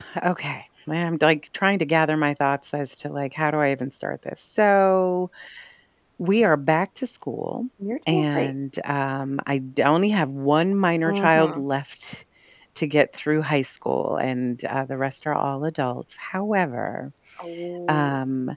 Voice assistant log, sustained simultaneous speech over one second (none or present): none